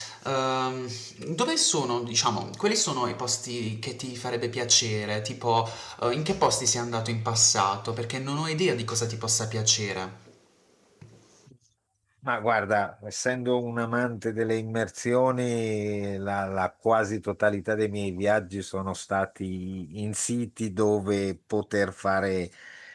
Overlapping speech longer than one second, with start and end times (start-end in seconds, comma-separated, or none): none